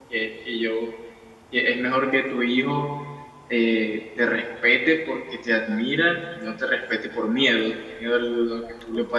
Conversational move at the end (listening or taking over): listening